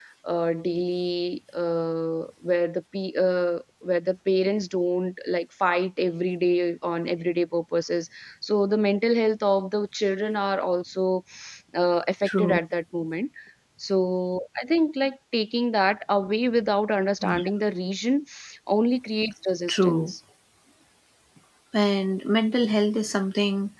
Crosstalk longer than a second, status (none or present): none